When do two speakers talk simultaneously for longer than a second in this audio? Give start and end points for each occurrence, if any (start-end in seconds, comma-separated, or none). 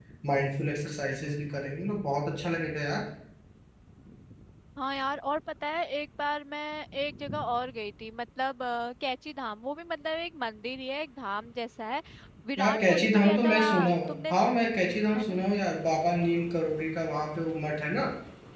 12.6-14.1